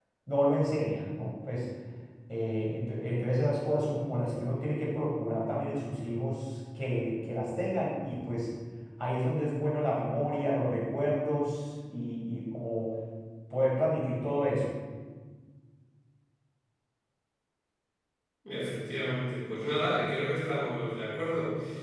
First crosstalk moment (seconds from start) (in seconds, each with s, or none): none